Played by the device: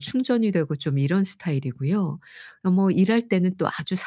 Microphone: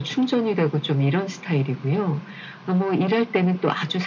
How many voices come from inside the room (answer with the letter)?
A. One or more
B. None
B